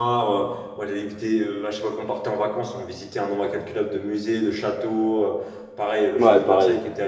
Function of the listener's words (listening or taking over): listening